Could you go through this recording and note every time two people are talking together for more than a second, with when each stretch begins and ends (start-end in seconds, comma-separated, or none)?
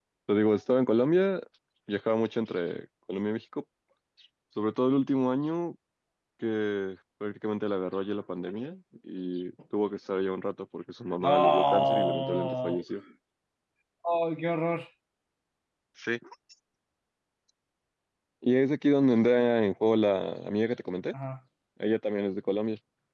11.2-12.8